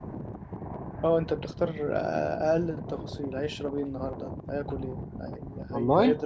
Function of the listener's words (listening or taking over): listening